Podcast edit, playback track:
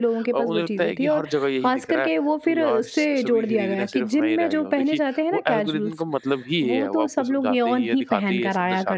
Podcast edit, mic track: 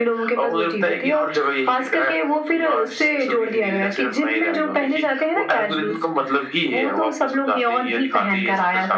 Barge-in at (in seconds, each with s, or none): none